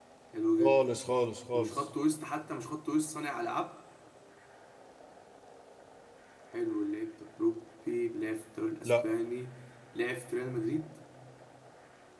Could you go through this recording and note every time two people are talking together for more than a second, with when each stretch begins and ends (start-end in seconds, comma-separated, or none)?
none